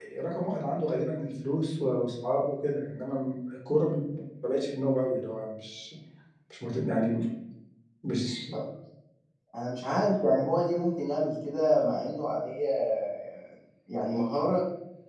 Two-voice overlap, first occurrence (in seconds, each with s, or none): none